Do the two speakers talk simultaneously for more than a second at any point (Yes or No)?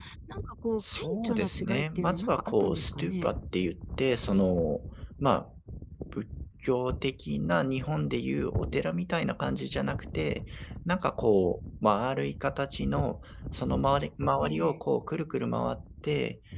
Yes